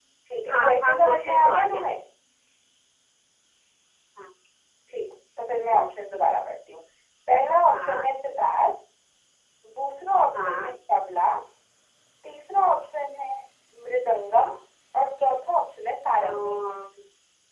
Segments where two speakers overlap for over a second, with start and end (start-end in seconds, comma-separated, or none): 0.5-1.8